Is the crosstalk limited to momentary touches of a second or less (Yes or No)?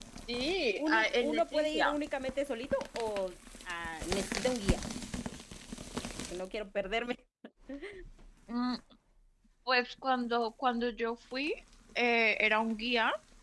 No